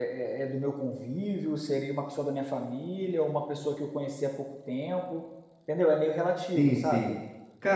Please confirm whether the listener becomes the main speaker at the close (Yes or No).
Yes